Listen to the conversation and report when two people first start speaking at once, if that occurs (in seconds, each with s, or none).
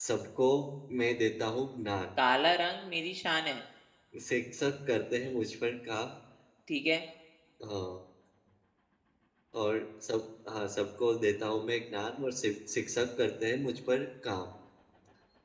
none